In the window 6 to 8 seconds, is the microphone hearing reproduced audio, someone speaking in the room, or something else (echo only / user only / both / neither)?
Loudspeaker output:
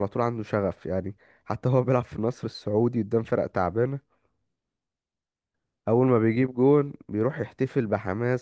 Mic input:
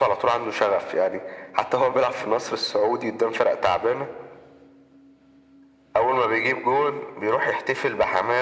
echo only